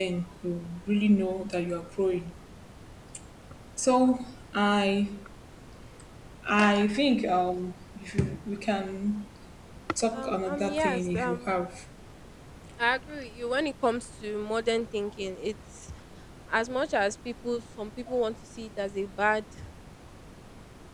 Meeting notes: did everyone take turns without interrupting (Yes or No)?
No